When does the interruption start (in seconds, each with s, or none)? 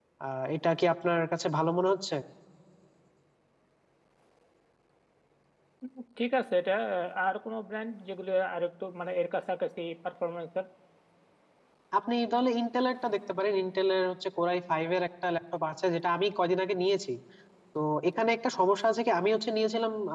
none